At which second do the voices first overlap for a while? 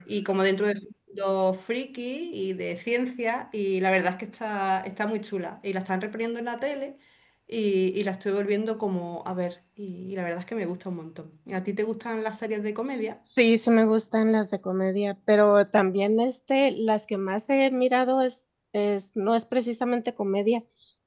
none

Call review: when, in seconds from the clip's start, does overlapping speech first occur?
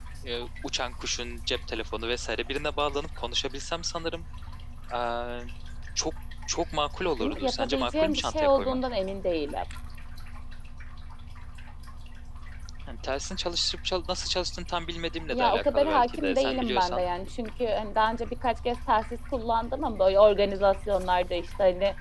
7.0 s

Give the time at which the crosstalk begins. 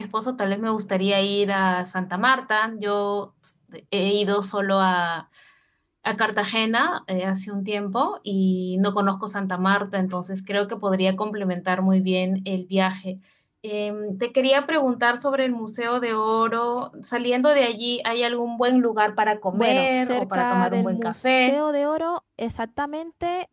19.5 s

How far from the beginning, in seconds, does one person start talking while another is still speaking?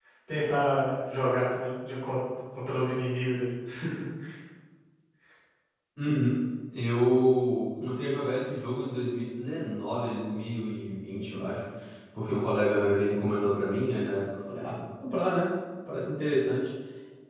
none

